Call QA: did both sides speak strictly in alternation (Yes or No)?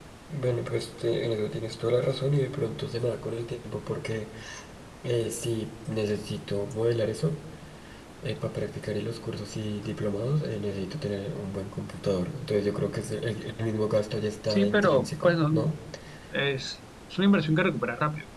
No